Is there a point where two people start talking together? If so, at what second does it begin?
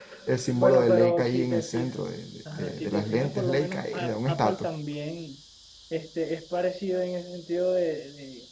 0.5 s

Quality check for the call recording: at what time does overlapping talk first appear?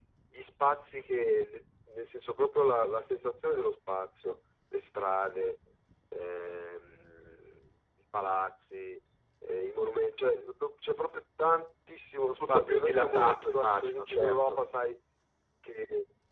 12.4 s

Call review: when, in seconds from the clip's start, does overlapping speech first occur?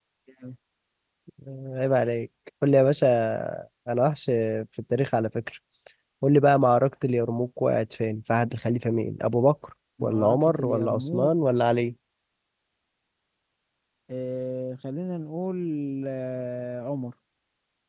10.0 s

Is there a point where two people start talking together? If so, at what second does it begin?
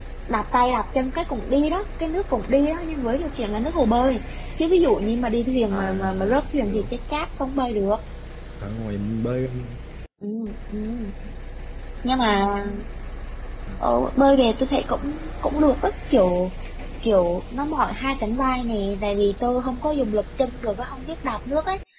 5.7 s

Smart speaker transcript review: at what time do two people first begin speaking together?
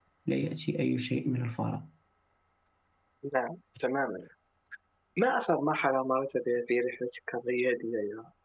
none

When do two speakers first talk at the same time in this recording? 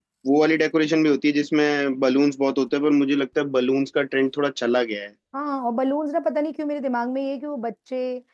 none

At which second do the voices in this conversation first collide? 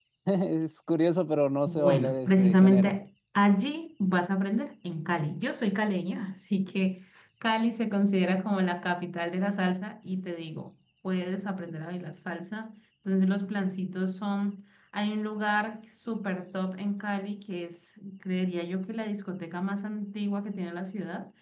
1.7 s

